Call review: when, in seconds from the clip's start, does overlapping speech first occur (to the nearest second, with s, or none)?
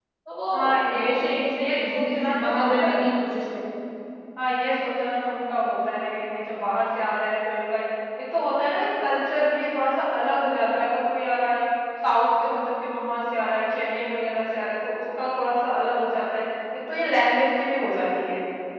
1 s